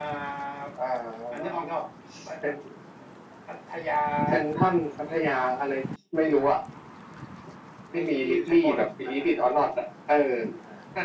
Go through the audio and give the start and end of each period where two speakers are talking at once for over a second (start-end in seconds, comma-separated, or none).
7.9-9.3